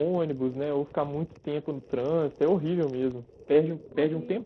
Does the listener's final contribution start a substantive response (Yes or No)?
No